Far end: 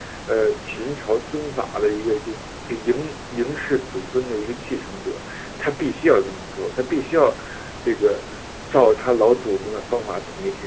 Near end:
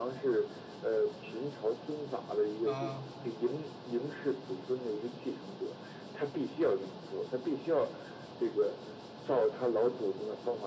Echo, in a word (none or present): present